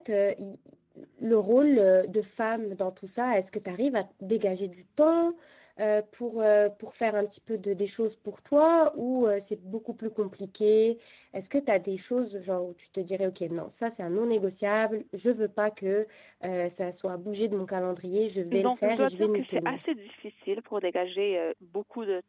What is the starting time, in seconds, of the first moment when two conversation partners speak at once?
18.5 s

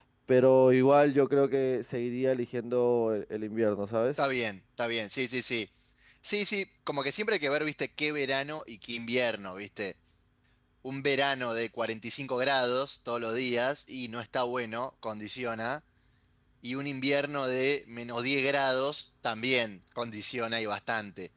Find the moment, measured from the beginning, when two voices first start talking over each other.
none

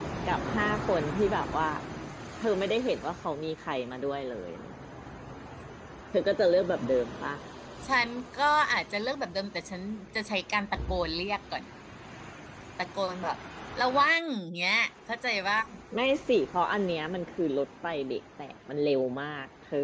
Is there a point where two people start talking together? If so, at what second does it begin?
none

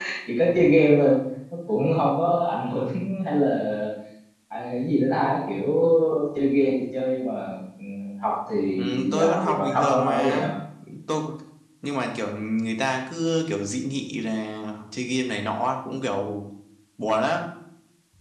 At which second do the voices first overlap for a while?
9.1 s

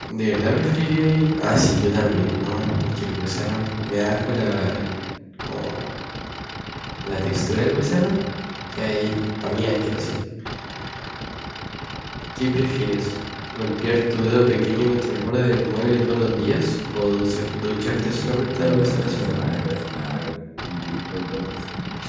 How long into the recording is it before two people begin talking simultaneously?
18.0 s

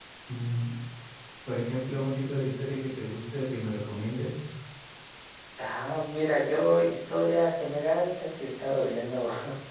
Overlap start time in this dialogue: none

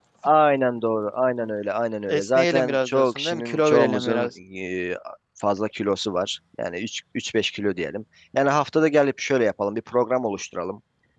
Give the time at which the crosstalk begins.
2.1 s

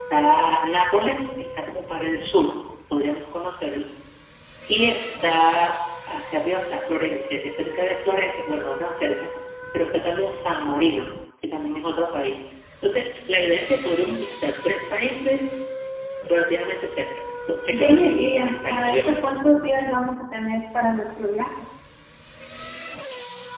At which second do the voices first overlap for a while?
17.7 s

